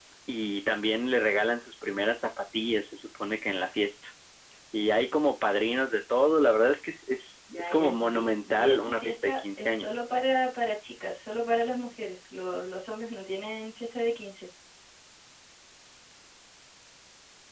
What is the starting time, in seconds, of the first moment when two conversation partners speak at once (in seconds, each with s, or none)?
7.5 s